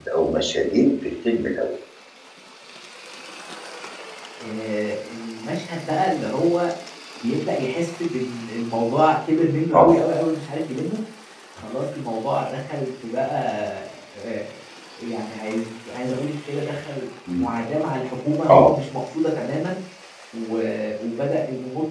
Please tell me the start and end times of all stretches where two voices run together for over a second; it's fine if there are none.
none

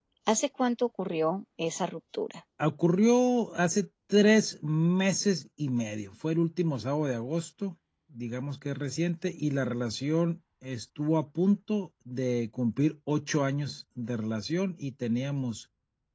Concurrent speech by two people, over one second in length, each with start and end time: none

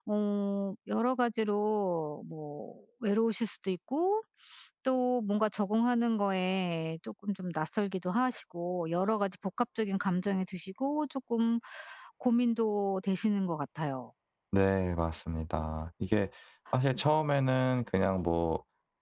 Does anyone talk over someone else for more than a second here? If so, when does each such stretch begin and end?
none

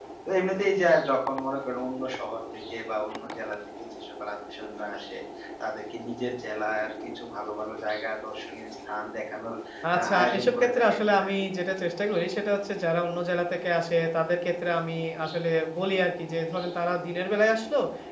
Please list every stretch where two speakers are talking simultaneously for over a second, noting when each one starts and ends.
10.0-11.3

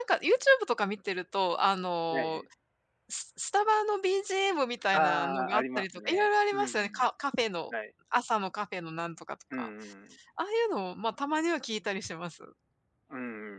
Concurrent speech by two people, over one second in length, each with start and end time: 4.9-7.1

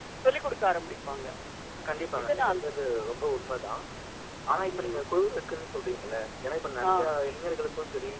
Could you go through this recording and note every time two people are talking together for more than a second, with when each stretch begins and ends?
none

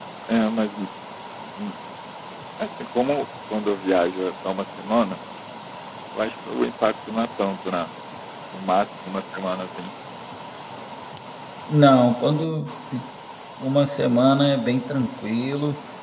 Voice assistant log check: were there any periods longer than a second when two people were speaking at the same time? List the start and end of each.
none

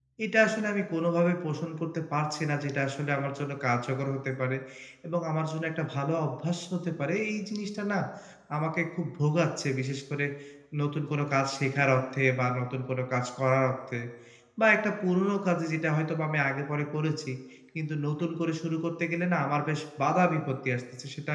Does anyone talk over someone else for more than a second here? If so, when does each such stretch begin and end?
none

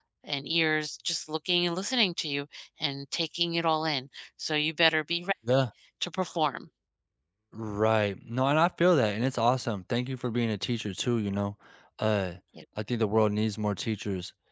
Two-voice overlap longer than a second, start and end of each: none

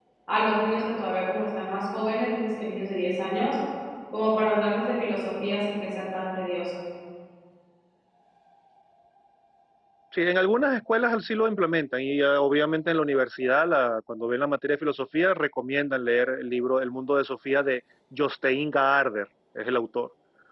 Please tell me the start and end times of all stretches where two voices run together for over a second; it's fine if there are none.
none

